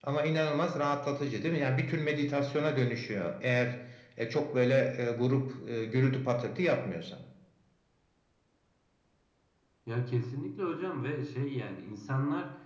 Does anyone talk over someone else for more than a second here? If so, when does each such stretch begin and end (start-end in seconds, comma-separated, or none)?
none